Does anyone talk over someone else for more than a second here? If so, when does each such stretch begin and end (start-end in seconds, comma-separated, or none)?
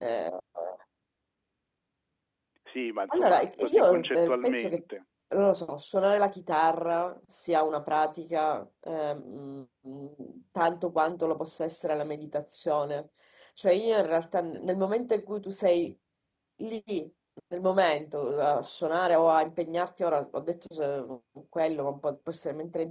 3.1-4.8